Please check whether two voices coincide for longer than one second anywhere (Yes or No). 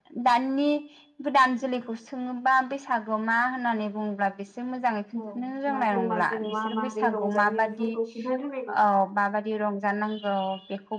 Yes